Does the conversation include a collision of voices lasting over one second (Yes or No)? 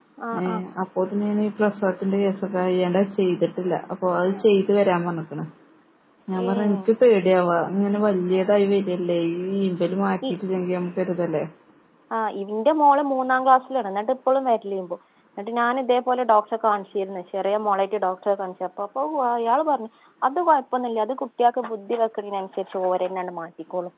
No